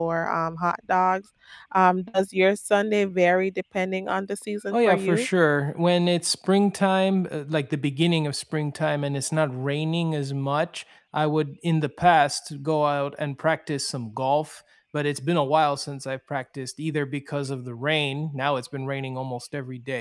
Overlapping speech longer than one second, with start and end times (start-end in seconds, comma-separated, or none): none